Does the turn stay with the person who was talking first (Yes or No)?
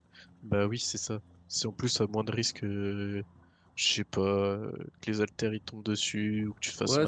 No